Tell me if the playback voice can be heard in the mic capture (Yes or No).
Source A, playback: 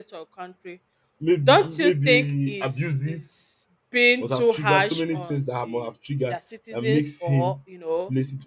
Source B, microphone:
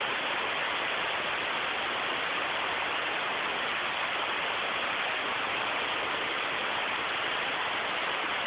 No